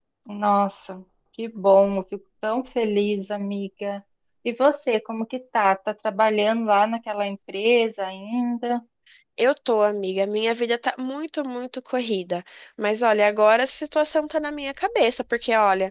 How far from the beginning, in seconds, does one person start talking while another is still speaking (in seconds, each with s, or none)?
none